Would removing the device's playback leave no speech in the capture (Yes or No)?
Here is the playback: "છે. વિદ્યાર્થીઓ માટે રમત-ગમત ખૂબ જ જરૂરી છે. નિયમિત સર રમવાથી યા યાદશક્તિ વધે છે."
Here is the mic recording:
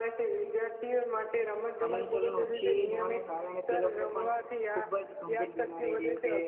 No